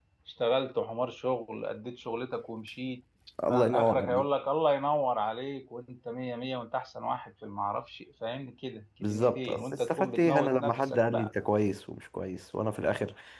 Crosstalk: present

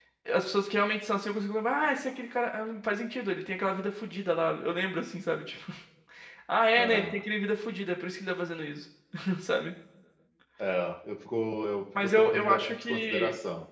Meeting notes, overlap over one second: present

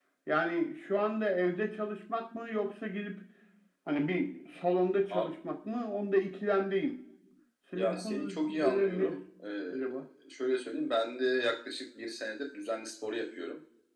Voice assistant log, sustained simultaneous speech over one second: present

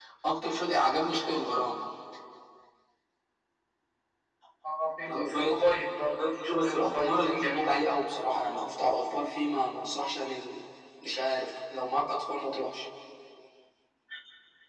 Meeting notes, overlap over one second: present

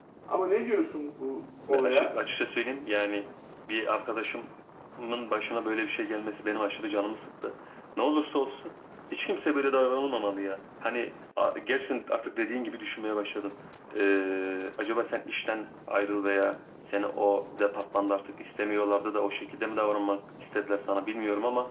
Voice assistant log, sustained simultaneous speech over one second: none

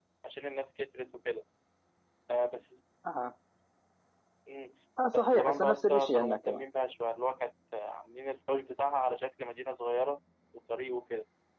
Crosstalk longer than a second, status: present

